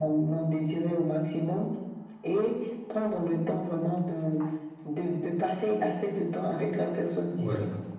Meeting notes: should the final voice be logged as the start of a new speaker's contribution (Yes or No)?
No